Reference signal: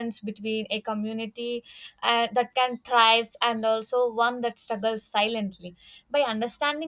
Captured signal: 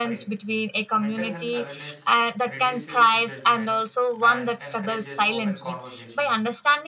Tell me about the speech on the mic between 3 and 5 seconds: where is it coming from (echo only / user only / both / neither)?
both